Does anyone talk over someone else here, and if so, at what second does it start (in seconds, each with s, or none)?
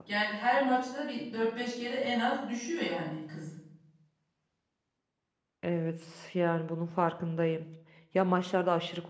none